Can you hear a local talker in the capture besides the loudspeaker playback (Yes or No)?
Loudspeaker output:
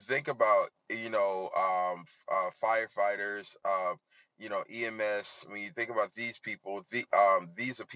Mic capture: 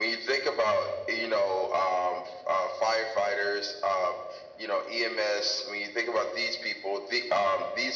No